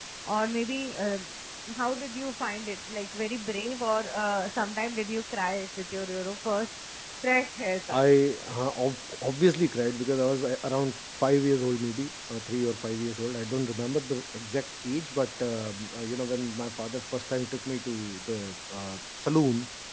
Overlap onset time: none

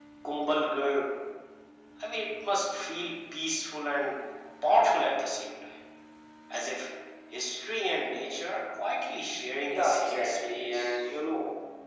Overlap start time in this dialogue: 9.7 s

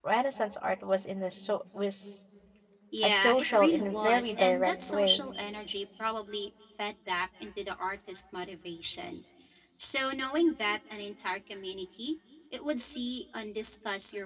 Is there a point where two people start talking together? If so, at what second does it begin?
3.0 s

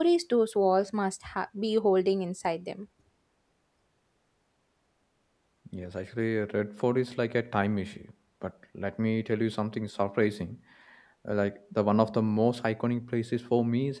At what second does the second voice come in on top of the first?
none

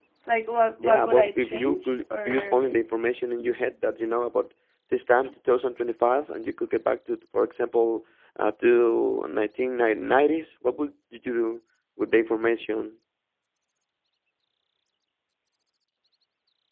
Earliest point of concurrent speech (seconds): 0.8 s

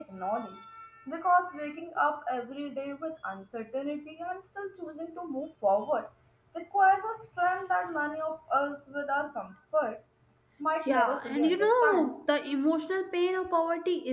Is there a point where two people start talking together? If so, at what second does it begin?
10.9 s

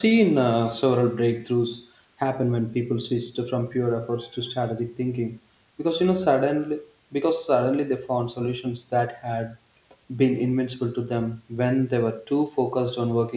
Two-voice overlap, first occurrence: none

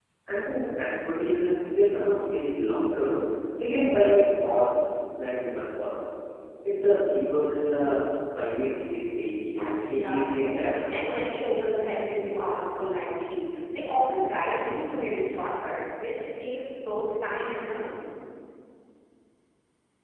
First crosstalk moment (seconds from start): 9.9 s

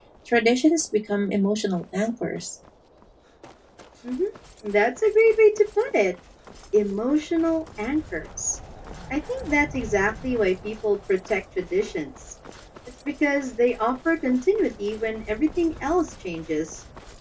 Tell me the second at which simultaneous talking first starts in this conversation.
none

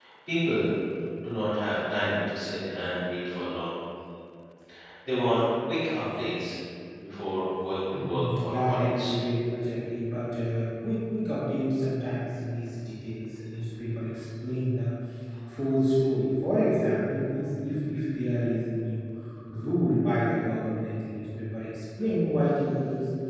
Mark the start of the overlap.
7.9 s

